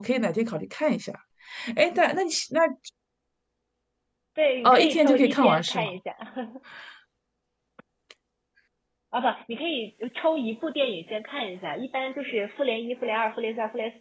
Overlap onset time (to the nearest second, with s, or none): 5 s